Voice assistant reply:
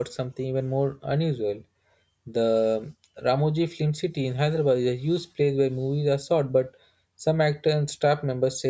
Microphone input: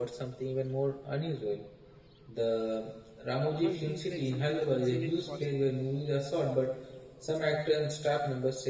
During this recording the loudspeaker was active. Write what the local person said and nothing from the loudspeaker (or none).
tunnel feels like something unseen is watching.